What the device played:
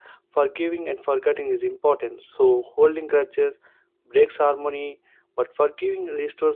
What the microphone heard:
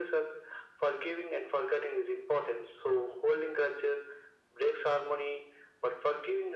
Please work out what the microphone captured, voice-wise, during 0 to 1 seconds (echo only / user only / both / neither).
echo only